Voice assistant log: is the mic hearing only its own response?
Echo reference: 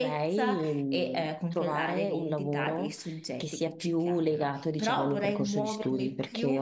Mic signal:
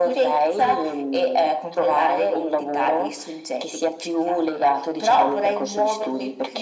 Yes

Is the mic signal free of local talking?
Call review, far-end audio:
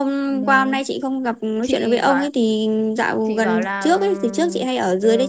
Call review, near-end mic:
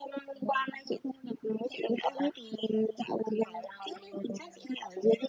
Yes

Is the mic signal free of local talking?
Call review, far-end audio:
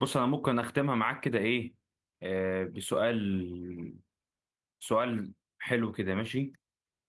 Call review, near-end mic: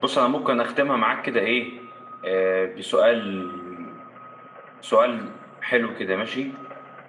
Yes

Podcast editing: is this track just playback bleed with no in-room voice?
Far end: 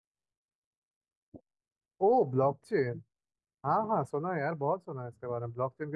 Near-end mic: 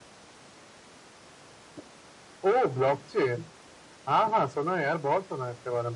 Yes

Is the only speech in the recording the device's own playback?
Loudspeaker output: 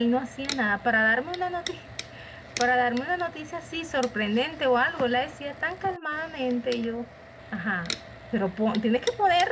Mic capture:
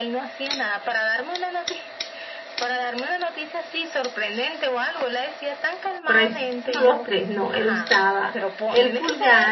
No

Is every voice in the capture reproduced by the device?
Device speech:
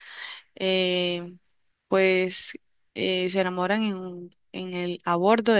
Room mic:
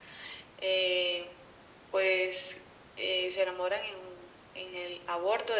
Yes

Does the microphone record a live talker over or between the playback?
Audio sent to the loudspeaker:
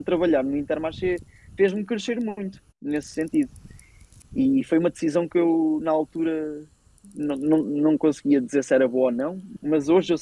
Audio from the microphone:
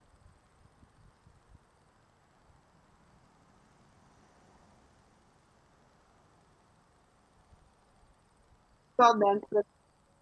Yes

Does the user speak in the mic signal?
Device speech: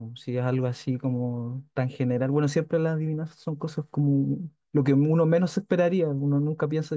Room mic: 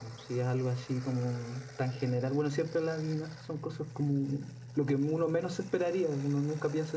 No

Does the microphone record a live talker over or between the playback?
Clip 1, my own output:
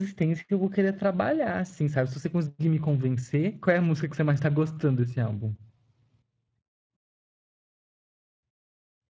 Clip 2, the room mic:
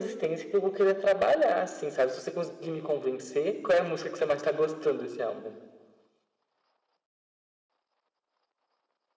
No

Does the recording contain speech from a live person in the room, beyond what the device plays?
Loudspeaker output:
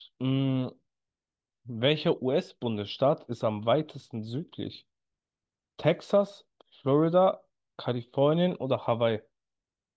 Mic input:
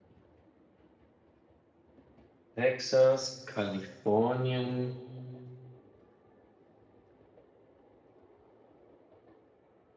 Yes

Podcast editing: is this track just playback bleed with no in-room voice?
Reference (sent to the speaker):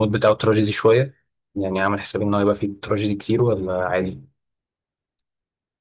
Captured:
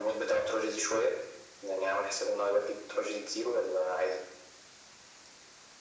Yes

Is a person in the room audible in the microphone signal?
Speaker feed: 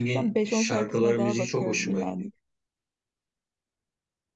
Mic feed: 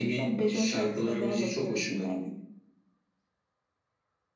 No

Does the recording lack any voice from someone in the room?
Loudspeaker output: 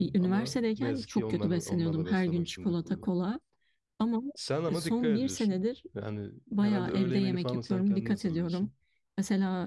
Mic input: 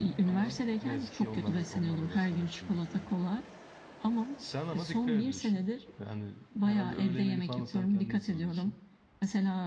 Yes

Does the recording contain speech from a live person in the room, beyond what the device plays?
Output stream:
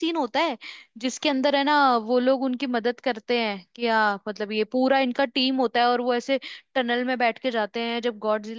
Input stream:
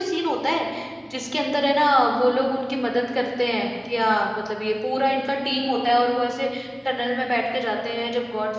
No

